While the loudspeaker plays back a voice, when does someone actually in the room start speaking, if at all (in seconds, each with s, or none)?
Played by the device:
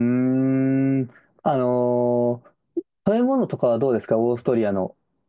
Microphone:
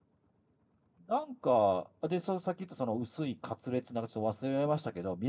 1.1 s